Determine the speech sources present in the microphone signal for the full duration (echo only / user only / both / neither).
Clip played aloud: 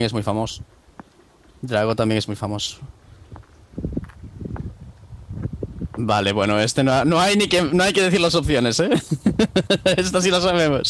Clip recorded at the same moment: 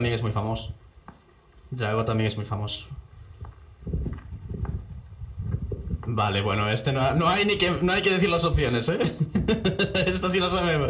echo only